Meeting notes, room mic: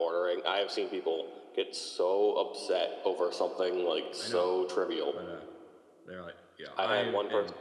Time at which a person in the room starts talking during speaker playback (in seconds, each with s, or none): 4.2 s